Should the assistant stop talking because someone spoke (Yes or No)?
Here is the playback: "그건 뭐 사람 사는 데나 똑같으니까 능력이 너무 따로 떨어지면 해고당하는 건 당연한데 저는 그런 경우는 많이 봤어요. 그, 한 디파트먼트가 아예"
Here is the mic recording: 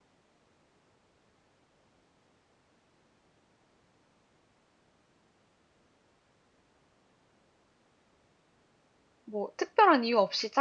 Yes